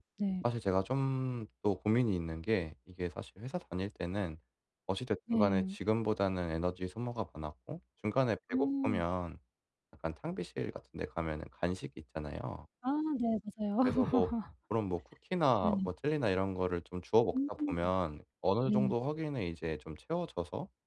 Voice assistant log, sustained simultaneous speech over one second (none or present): none